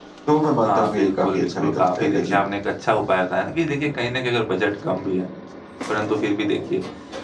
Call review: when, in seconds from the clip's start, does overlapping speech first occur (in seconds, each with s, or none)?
0.6 s